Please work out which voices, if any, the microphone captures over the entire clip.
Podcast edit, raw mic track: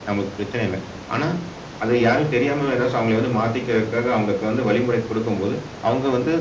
echo only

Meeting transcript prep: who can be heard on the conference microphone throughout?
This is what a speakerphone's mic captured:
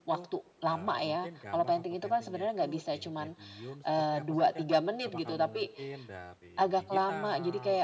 both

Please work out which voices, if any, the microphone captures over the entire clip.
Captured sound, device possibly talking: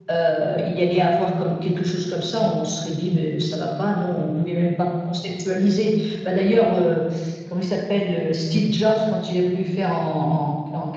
echo only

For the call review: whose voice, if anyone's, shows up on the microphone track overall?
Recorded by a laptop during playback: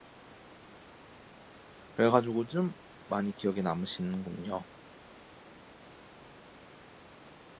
user only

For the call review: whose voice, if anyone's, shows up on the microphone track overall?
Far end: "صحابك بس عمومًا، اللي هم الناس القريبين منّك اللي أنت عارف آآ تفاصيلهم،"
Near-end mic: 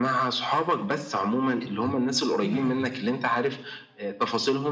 both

